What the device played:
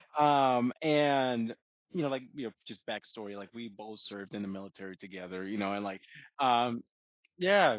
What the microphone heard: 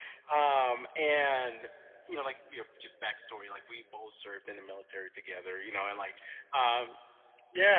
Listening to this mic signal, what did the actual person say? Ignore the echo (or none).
none